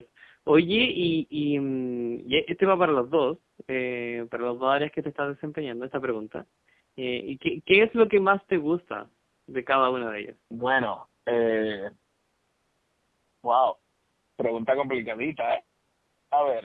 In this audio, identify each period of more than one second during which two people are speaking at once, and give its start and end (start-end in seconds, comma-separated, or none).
none